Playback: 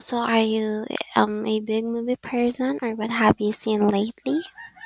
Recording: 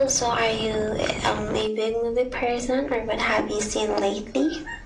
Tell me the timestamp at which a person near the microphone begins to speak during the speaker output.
none

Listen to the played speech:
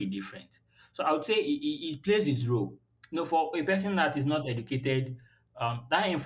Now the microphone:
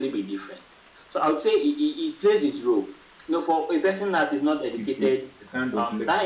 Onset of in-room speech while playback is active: 4.7 s

